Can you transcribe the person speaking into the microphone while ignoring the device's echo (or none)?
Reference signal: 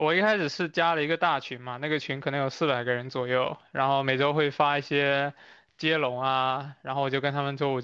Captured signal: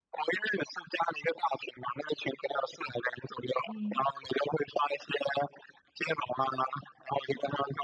嗯